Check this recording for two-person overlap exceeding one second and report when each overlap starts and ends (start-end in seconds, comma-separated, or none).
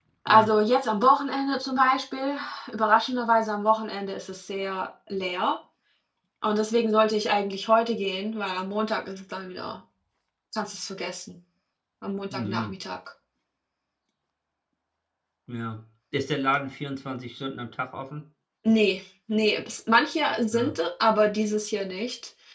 none